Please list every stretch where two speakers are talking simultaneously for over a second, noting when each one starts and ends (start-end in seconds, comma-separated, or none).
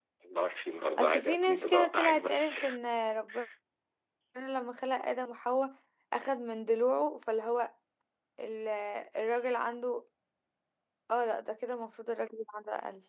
1.0-2.6